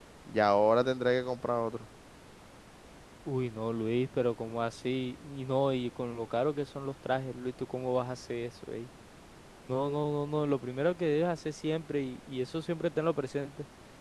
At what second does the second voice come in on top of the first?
none

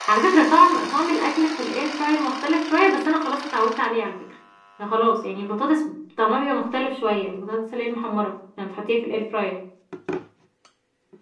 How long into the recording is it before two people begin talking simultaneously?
none

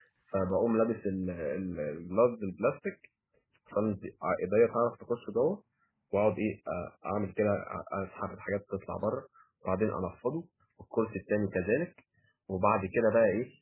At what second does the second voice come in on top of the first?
none

